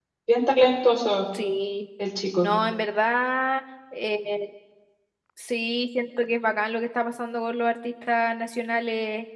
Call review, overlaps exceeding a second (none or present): none